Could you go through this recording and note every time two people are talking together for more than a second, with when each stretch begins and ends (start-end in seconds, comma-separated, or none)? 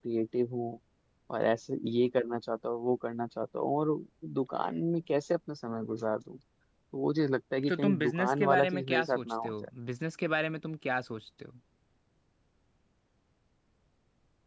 7.7-9.5